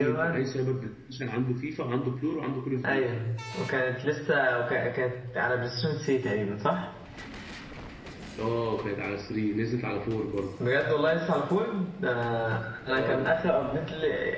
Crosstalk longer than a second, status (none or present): none